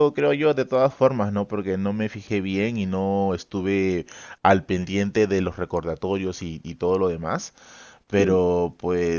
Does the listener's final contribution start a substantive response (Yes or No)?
No